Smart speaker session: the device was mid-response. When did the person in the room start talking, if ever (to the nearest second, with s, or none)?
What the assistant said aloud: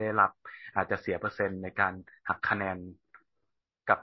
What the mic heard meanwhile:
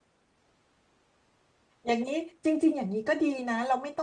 2 s